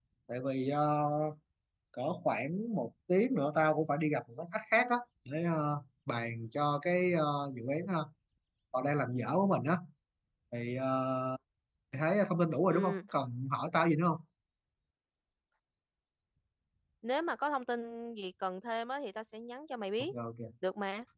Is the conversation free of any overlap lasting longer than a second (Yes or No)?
Yes